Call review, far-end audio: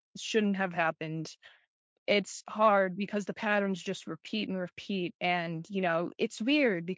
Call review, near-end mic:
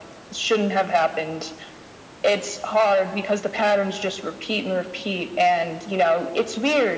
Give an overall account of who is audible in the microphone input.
echo only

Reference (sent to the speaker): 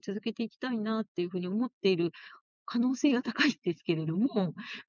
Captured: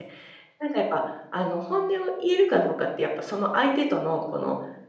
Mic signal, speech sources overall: user only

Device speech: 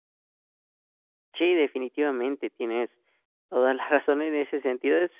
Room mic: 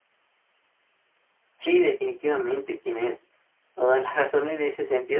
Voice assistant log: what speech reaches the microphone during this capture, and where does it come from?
echo only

